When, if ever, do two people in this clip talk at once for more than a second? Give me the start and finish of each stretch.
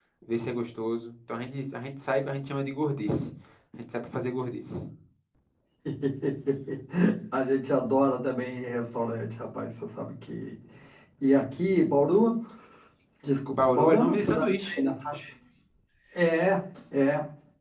13.5-14.8

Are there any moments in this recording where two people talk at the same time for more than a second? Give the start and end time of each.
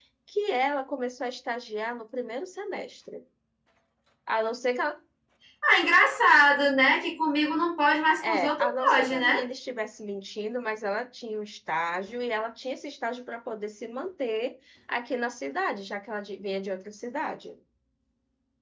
8.2-9.4

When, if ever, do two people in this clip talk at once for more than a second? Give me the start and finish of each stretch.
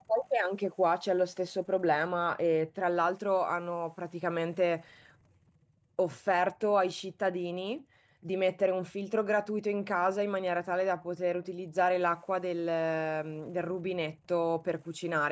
none

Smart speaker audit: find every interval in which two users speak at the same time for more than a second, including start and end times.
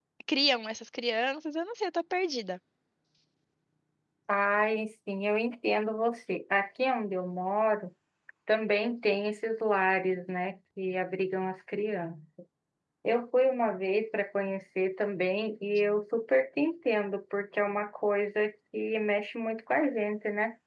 none

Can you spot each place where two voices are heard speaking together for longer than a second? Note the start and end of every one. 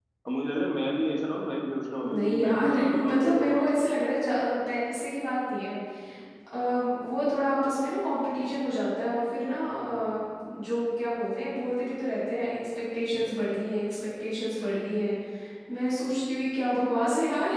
2.0-3.9

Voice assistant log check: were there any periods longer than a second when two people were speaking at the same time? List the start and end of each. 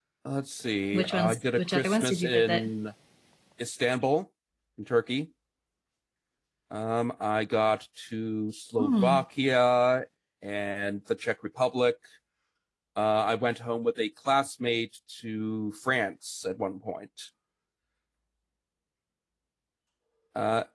0.9-2.7

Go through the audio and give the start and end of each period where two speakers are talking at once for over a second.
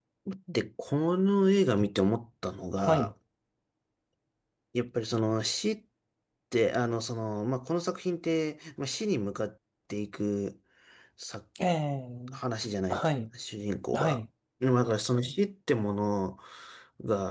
none

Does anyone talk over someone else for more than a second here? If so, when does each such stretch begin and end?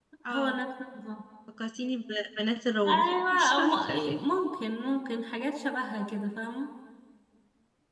2.9-4.2

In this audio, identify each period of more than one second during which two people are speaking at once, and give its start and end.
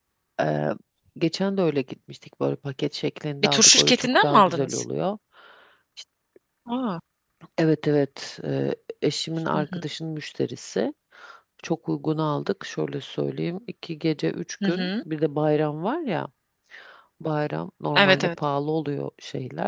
3.4-4.8

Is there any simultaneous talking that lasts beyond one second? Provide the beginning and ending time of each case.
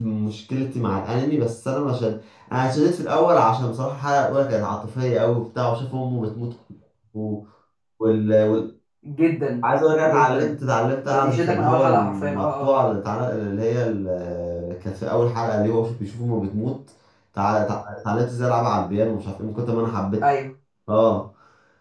11.1-12.9

